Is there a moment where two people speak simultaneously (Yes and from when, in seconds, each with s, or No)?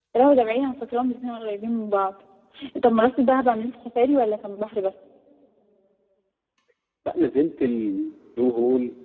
No